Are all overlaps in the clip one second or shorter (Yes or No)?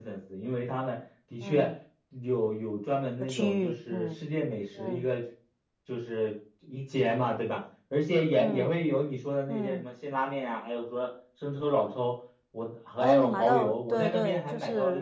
No